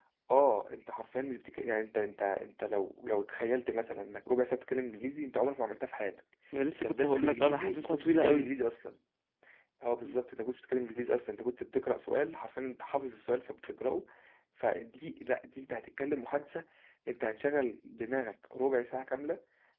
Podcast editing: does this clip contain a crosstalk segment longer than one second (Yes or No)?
Yes